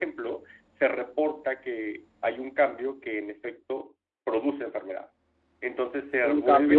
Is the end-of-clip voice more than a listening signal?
Yes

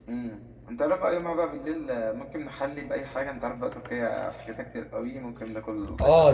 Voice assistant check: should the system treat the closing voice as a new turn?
Yes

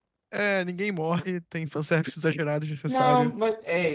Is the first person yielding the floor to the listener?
Yes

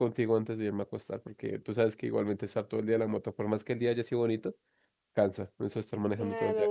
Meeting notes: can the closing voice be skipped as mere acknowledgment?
No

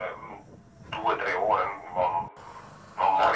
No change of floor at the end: Yes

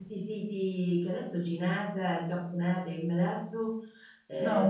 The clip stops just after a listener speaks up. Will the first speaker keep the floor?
No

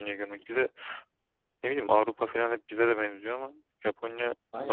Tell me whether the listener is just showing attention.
No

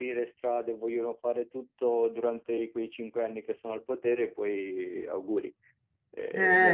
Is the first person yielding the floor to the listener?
Yes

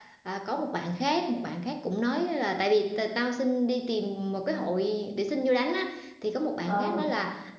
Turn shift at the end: No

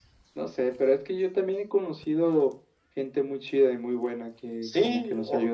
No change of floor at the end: No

